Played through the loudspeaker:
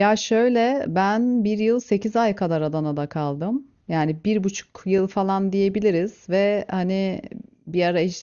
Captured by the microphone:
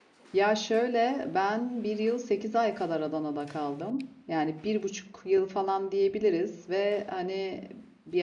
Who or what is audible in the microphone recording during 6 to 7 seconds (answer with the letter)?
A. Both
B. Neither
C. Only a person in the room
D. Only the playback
D